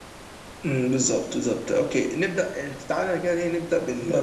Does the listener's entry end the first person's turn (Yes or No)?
No